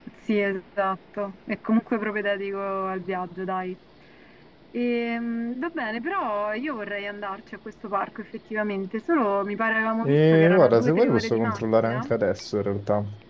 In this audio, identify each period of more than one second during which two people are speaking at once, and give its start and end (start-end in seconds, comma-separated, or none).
10.1-12.1